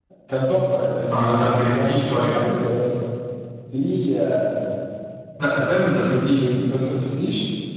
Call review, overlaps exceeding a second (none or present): present